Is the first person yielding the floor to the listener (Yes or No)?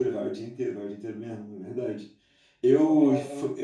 No